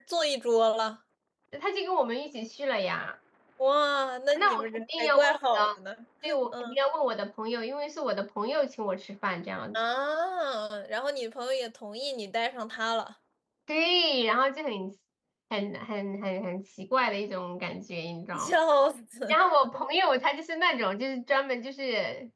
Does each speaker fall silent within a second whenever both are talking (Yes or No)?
No